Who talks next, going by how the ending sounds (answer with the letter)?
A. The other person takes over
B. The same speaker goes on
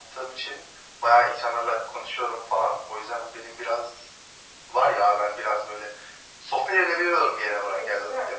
B